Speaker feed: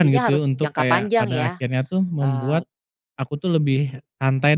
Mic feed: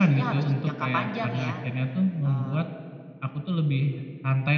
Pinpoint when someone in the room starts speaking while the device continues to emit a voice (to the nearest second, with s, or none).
none